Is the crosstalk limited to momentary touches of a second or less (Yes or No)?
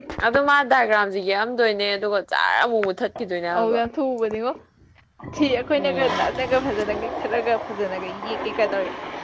Yes